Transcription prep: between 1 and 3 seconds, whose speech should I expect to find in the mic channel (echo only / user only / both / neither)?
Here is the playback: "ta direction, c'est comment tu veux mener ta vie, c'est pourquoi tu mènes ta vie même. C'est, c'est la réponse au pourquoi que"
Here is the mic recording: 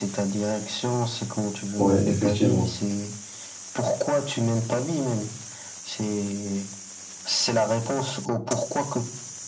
both